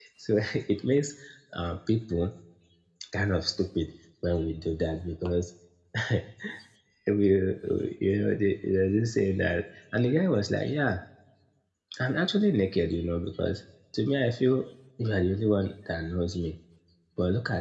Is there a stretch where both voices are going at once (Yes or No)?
No